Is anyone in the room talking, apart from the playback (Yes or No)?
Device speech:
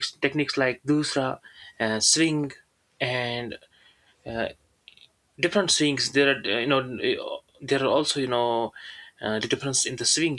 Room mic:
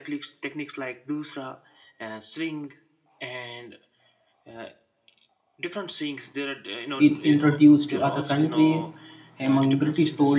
Yes